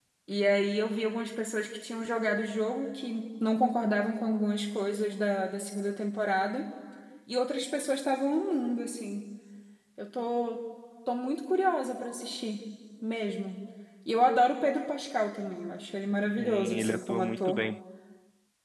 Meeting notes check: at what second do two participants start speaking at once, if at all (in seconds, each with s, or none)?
16.3 s